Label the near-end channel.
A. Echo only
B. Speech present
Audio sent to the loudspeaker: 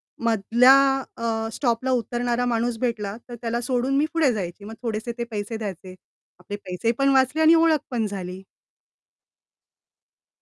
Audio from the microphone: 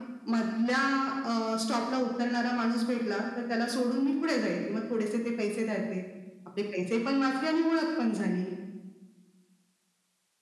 A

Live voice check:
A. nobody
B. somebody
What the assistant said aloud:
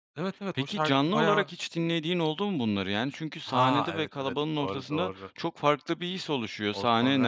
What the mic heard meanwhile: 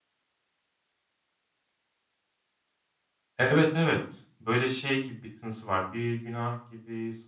B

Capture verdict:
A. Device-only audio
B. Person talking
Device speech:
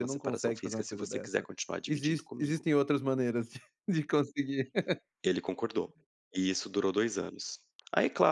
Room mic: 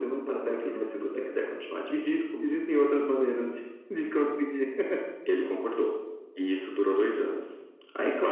A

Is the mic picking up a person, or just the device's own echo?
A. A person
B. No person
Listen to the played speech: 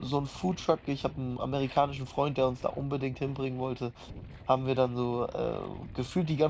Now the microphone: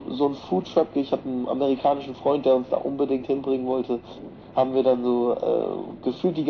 B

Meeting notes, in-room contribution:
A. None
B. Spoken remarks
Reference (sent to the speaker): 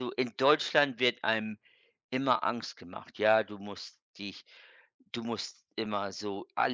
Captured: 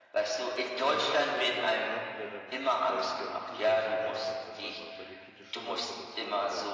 B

